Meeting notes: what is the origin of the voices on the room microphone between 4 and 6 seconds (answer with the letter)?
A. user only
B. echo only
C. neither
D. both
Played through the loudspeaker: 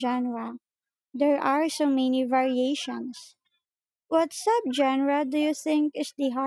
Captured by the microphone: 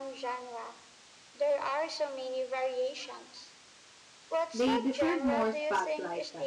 D